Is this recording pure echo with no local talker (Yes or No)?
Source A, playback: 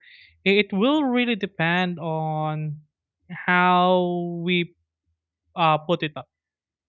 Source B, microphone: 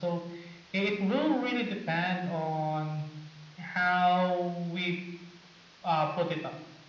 Yes